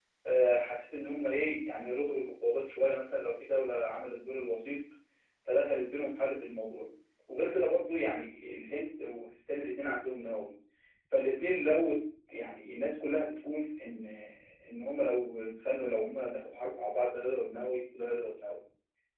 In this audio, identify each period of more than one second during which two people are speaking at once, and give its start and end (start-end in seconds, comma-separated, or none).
none